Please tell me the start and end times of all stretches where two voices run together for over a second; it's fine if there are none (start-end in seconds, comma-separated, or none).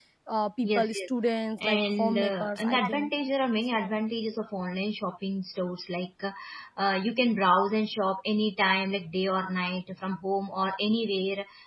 1.6-3.1